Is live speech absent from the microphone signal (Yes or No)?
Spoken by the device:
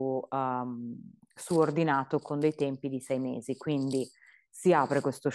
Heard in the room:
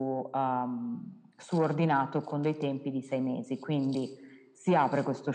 Yes